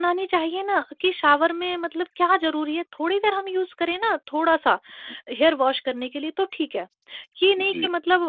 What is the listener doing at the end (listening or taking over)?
listening